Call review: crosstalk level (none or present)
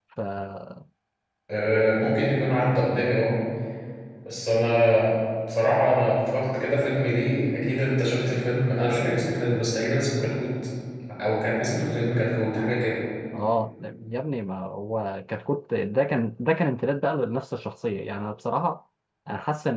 none